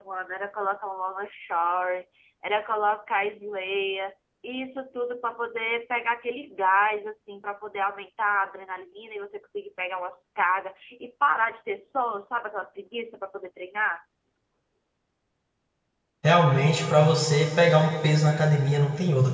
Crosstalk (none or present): none